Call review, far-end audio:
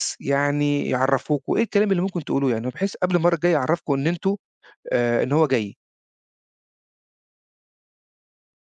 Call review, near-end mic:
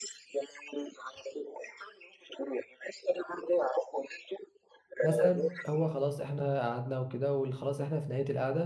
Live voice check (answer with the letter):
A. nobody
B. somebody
B